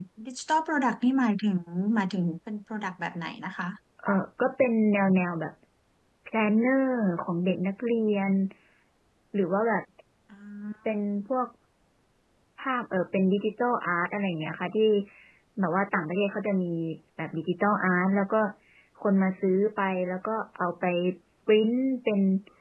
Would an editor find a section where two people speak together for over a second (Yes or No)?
No